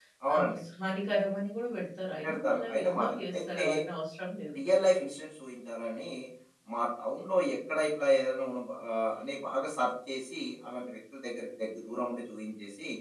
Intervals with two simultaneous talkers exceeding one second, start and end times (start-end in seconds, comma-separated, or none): 2.2-3.6